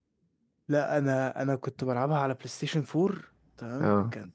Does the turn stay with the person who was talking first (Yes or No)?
Yes